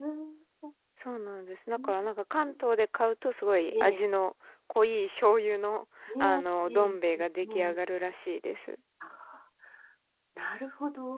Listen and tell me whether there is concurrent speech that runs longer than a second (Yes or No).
Yes